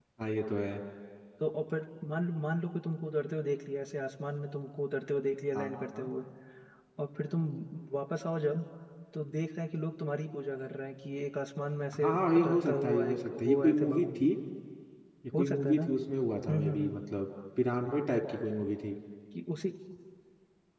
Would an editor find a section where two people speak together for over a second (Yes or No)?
Yes